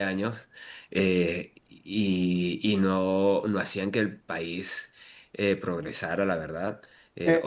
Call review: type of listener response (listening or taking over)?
listening